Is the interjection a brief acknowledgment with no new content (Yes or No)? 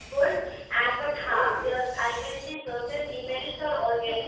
No